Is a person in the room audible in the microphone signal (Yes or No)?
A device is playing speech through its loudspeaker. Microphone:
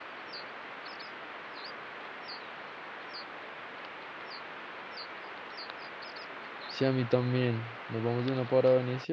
Yes